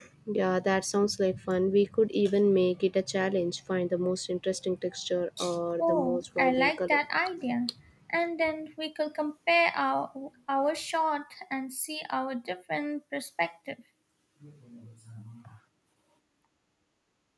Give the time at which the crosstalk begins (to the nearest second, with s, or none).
6 s